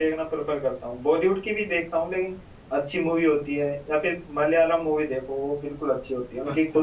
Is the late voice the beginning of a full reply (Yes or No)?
Yes